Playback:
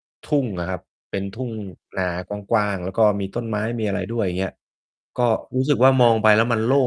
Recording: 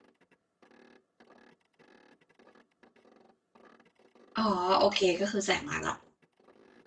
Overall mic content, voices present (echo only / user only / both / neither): user only